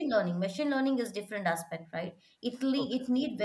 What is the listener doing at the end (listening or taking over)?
listening